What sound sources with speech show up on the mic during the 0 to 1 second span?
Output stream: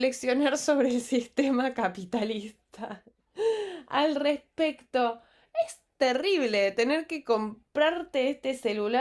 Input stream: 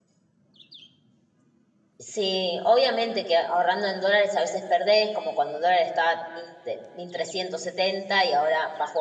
neither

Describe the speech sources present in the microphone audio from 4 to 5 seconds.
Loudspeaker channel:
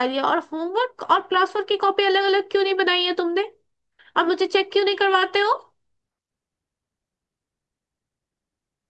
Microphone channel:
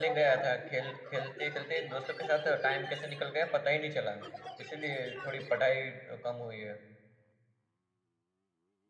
both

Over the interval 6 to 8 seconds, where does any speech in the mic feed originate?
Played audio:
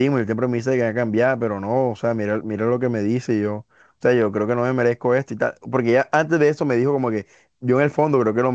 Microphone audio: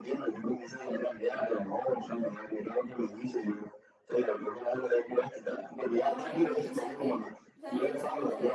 both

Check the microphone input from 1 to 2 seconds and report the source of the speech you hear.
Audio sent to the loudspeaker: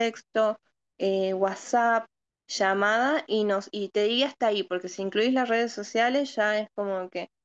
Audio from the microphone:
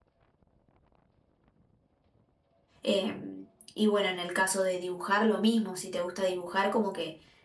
neither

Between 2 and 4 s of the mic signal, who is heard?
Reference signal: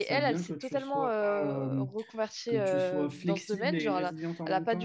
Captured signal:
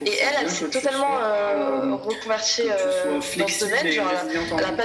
echo only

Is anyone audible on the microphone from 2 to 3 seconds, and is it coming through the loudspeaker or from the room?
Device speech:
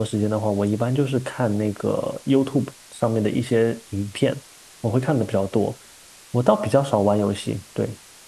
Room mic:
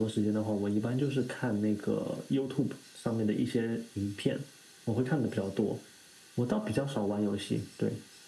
echo only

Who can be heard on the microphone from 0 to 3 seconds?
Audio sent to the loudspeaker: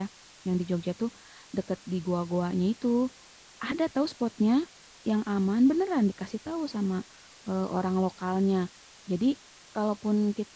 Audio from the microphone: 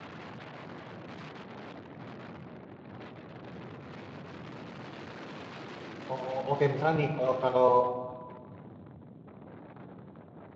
neither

